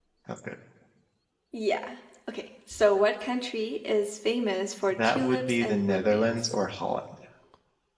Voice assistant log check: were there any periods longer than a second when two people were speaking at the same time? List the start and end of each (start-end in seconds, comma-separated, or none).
4.9-6.4